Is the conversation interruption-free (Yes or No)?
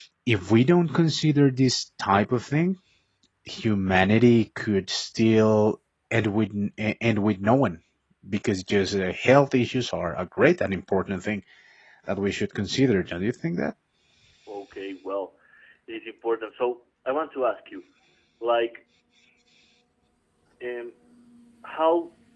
Yes